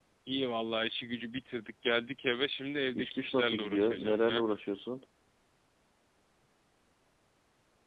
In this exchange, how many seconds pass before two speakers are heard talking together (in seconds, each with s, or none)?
2.9 s